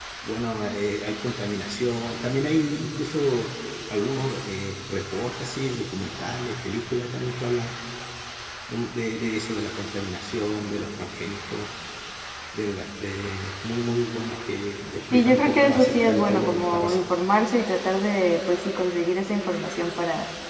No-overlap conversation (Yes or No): No